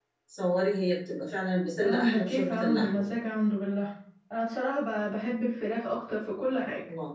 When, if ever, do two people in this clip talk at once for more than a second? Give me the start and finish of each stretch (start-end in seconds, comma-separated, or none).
1.8-3.0